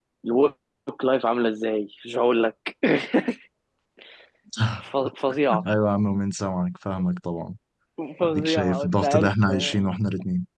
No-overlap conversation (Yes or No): No